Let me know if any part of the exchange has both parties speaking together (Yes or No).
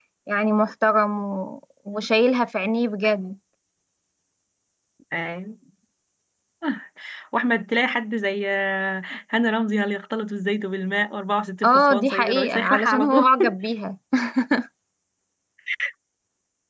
Yes